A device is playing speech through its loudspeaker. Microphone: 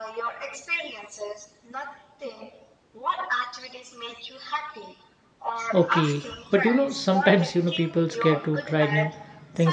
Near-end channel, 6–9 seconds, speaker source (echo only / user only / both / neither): both